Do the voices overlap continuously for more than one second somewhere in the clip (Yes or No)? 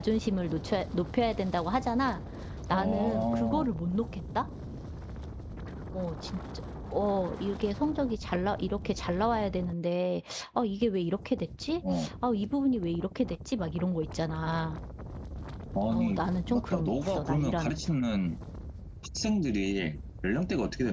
Yes